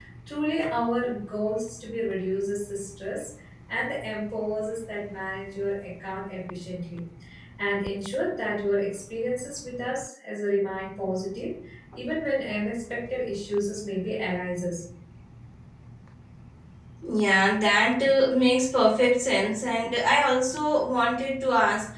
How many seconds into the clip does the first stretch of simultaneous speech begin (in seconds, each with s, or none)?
none